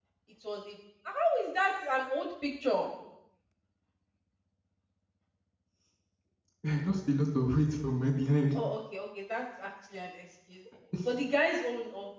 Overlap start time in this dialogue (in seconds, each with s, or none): none